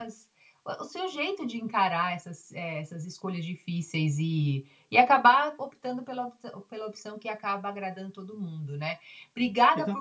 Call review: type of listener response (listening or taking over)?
listening